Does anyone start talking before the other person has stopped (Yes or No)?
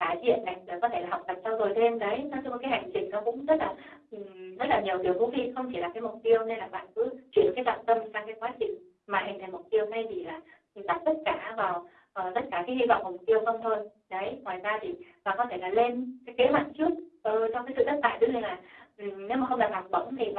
No